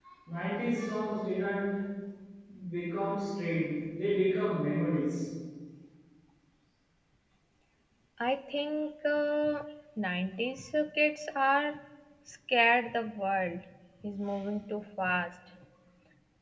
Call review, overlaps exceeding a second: none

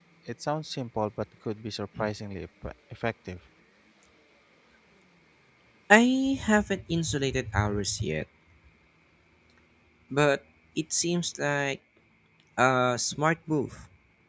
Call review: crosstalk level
none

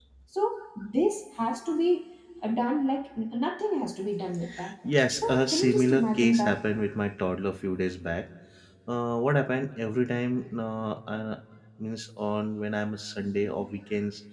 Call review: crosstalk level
present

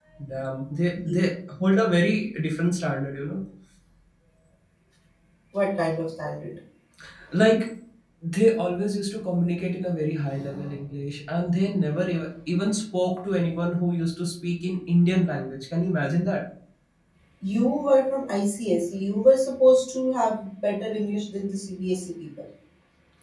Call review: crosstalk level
none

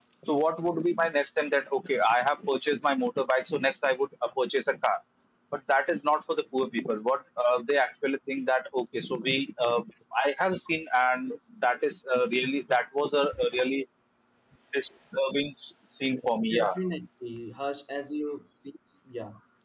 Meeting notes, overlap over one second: none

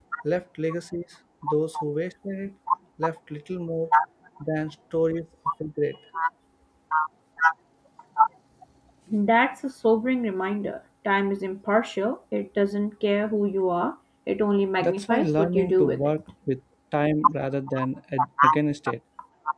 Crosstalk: present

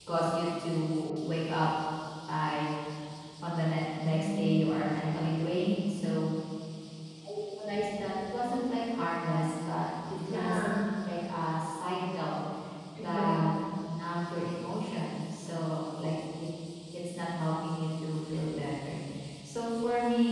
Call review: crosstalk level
present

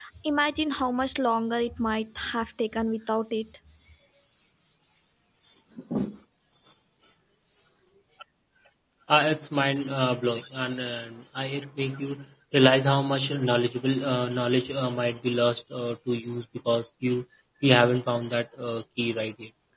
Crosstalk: none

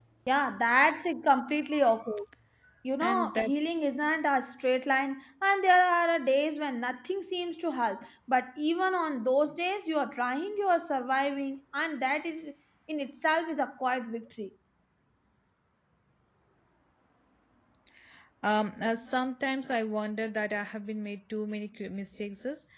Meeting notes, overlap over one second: none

